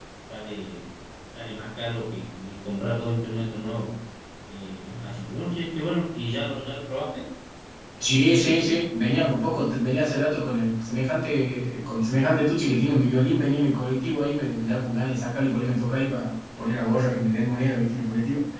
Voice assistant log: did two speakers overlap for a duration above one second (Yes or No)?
No